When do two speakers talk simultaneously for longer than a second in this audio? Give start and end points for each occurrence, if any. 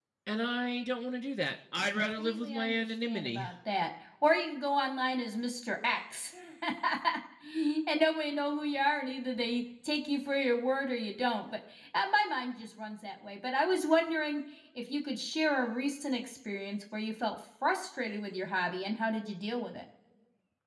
1.9-3.5

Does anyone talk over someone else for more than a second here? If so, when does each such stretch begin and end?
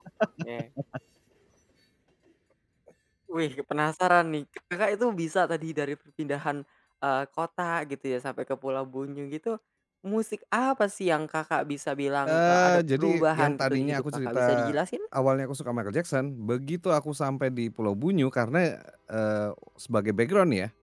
12.2-14.8

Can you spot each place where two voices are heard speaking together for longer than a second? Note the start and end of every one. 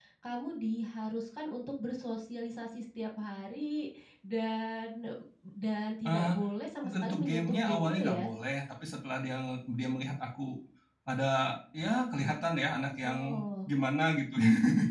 6.8-8.2

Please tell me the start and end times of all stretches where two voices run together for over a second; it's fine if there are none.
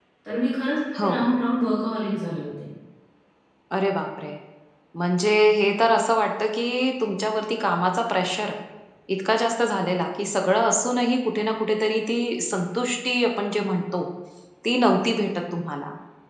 none

